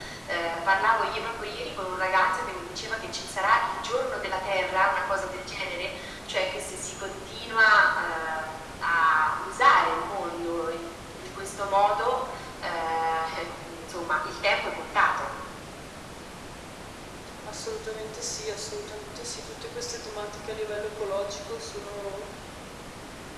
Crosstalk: none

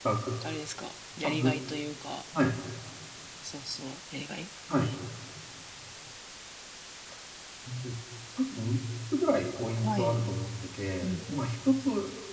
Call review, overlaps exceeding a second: none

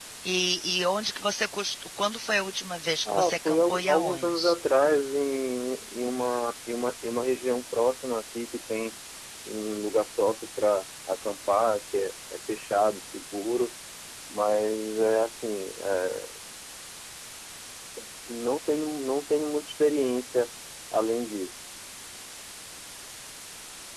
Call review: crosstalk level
present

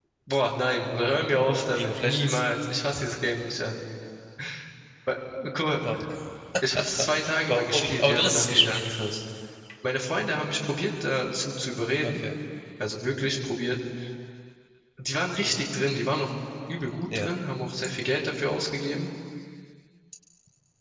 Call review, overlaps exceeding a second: present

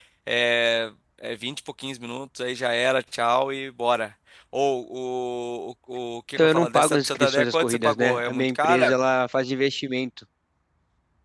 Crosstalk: present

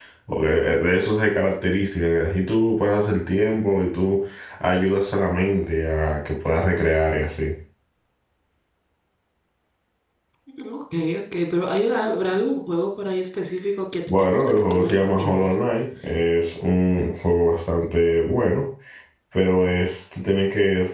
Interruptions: present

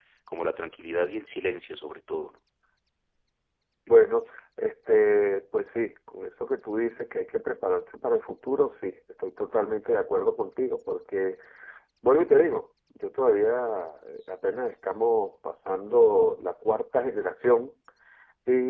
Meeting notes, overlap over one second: none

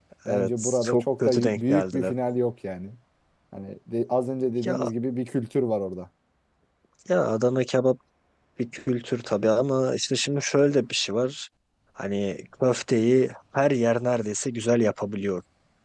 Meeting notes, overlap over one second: present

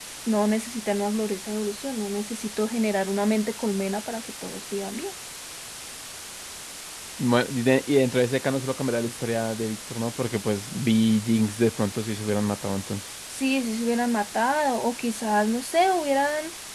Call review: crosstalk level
none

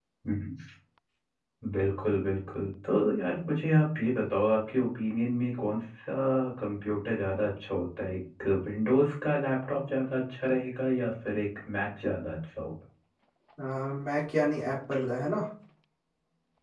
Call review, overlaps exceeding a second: none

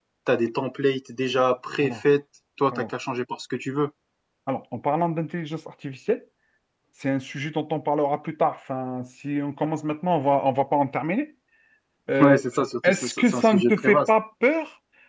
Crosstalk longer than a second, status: present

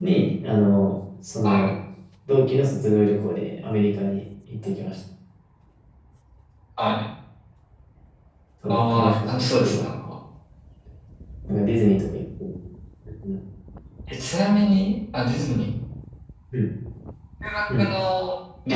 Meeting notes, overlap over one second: present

